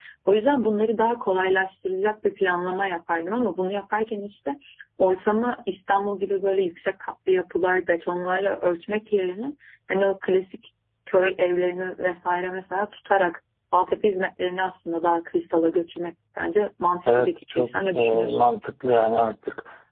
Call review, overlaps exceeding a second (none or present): present